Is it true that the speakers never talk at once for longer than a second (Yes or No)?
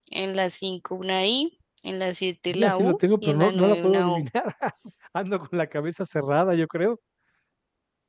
No